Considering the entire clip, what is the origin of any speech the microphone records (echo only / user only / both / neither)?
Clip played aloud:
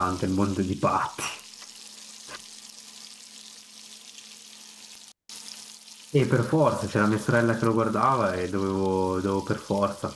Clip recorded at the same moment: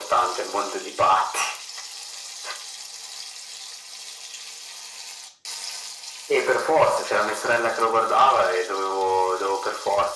echo only